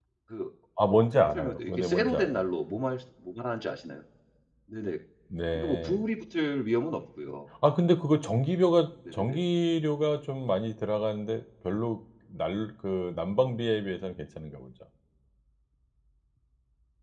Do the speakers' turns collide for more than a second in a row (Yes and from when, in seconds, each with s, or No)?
Yes, from 0.8 s